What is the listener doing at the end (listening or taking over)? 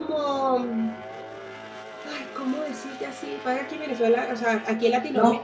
taking over